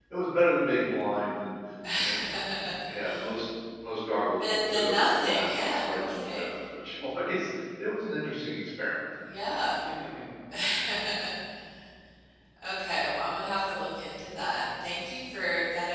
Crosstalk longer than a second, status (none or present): present